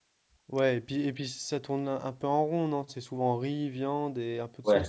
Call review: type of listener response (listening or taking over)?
taking over